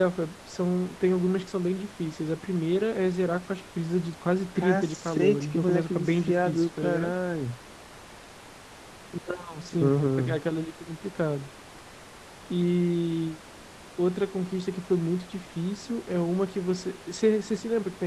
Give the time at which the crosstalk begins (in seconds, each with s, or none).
4.6 s